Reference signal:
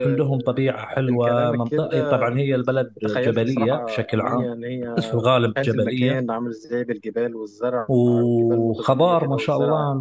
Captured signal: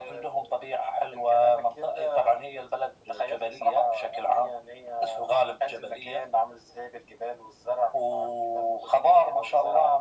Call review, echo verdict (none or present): present